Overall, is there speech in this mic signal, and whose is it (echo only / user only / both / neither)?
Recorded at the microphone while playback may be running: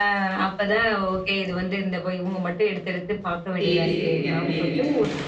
both